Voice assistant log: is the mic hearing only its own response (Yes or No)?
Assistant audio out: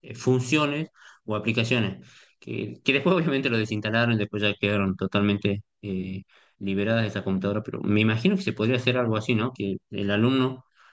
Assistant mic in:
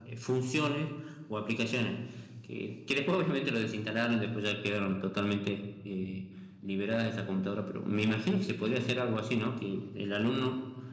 Yes